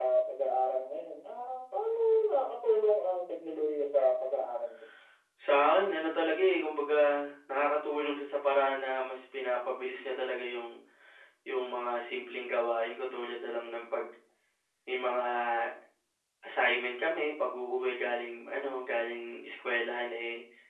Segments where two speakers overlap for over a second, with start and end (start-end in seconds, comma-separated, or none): none